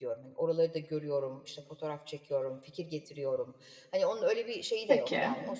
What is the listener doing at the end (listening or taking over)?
listening